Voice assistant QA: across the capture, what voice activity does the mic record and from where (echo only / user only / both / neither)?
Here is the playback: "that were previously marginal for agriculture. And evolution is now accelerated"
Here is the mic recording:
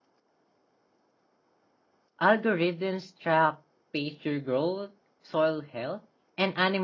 user only